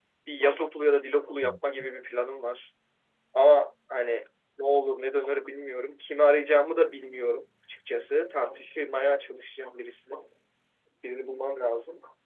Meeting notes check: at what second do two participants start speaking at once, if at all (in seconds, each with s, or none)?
none